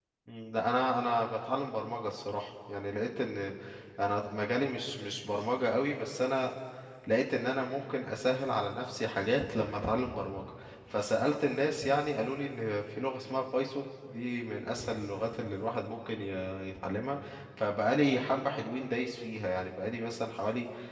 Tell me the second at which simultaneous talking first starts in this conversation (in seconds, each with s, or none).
none